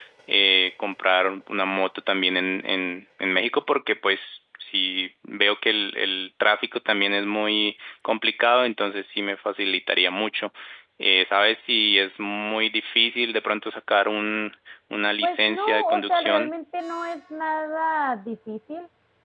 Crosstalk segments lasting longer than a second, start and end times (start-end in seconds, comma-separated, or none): 15.2-16.5